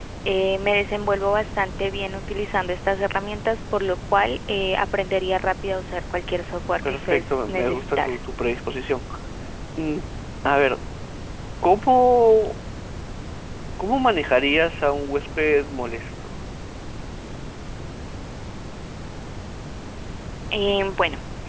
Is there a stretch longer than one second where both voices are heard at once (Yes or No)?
Yes